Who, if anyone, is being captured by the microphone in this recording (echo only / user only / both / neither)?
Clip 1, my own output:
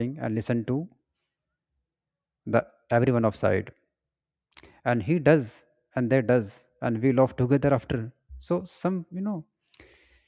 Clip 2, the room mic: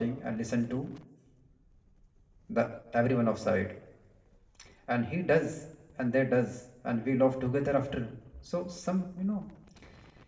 echo only